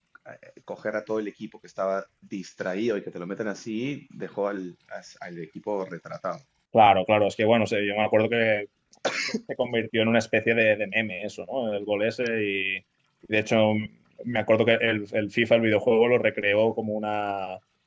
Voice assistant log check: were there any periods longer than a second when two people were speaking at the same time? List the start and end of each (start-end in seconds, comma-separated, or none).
none